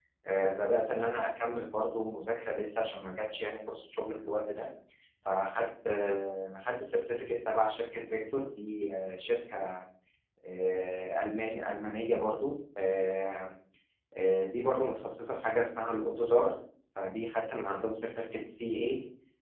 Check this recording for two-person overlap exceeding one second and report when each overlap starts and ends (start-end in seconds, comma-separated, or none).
none